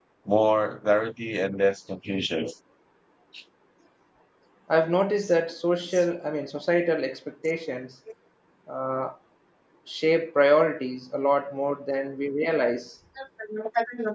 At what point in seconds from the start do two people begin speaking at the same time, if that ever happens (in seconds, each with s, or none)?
none